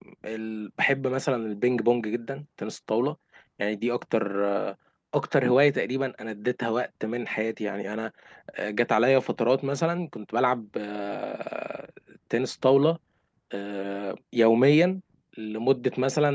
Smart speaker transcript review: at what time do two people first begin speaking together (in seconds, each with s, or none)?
none